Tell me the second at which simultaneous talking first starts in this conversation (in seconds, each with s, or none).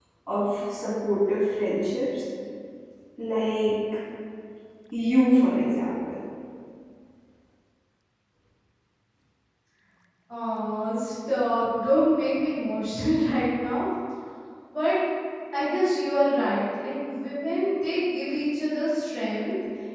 none